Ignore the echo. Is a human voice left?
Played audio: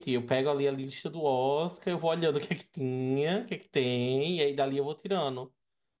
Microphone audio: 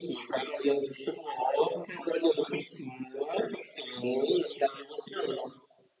No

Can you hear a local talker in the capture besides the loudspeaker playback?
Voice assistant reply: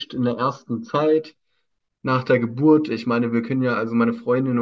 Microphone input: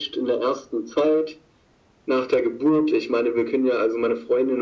No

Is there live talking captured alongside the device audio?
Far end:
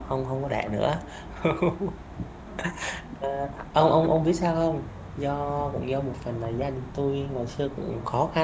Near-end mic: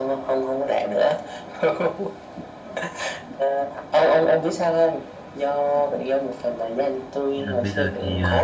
Yes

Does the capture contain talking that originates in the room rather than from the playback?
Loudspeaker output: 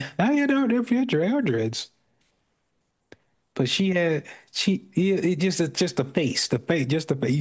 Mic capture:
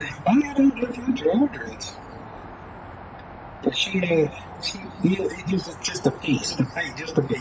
No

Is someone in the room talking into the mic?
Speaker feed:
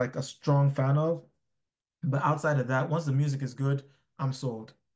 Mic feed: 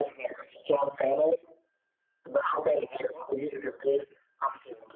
No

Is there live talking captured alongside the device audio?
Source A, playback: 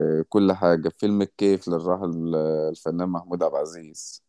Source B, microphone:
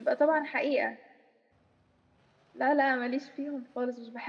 Yes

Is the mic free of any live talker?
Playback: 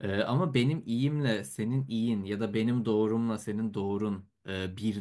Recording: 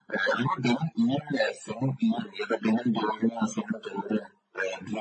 Yes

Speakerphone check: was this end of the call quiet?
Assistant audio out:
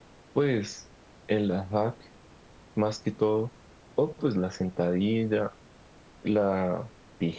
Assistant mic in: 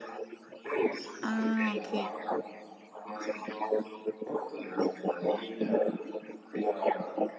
No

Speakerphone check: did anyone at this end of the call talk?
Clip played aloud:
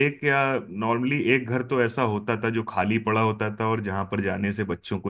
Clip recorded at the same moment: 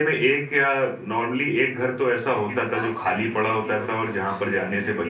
Yes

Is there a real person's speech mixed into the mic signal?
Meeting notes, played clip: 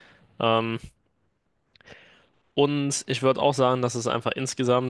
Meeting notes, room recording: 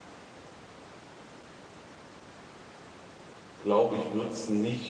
Yes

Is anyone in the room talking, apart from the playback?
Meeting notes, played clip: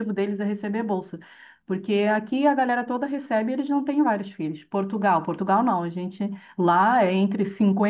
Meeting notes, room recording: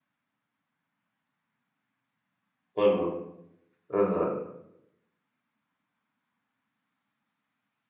Yes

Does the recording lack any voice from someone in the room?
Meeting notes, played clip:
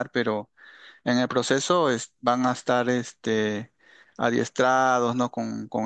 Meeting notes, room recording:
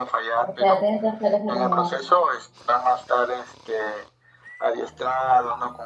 No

